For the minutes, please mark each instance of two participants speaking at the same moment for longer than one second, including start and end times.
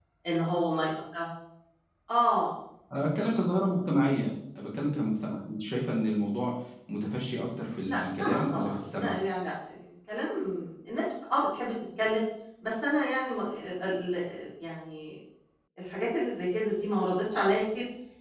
7.8-9.2

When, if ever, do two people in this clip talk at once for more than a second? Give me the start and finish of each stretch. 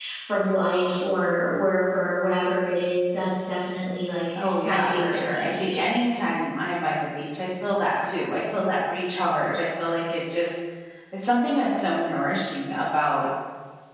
4.4-5.8

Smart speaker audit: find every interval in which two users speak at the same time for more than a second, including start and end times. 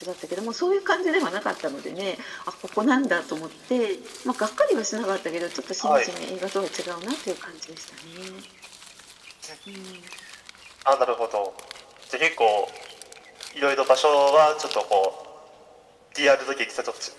none

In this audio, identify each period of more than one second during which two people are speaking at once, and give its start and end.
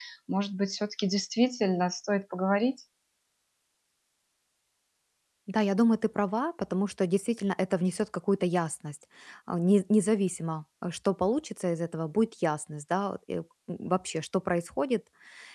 none

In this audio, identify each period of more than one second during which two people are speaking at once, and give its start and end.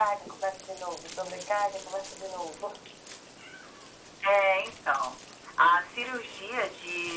none

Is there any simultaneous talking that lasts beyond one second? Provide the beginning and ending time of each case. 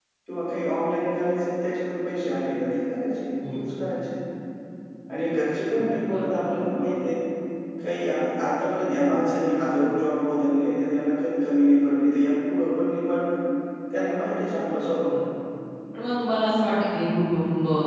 none

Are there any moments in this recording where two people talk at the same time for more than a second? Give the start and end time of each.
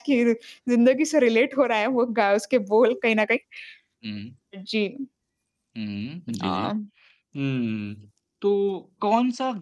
none

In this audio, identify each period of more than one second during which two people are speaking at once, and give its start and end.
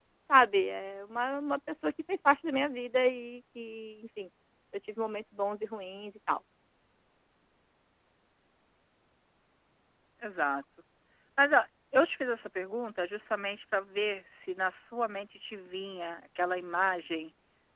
none

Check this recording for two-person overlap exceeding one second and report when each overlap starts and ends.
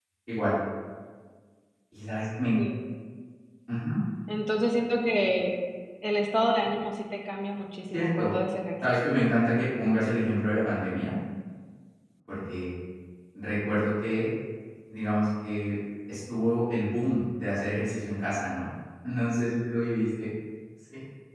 none

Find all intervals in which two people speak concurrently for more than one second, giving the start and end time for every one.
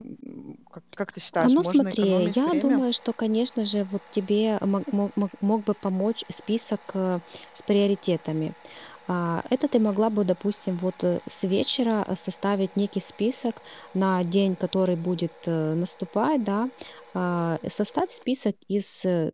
1.4-2.8

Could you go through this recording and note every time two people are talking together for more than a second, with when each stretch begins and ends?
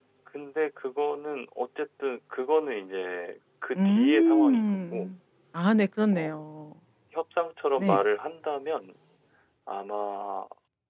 3.8-5.1

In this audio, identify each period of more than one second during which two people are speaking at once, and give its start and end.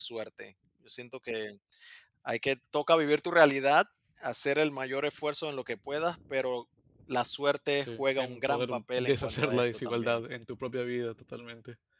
7.8-10.2

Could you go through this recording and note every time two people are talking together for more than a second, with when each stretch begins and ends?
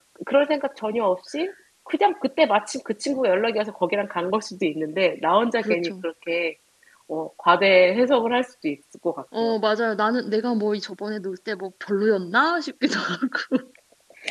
none

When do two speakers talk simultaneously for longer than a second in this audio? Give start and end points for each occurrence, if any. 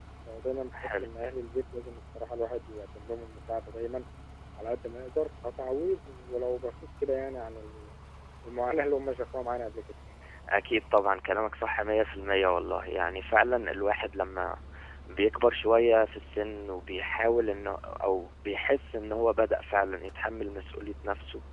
none

